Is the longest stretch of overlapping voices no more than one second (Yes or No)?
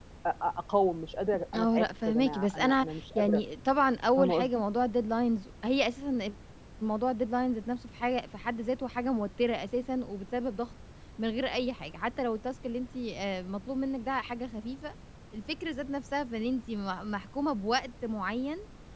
No